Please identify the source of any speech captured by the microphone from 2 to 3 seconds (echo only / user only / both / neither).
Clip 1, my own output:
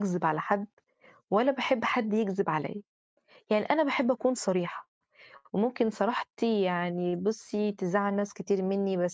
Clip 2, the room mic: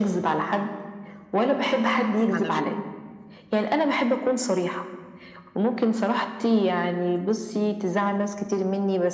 both